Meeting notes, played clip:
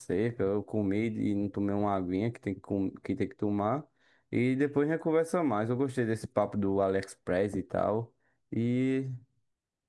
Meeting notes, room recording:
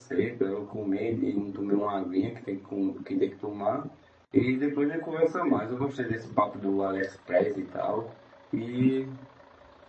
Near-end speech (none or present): none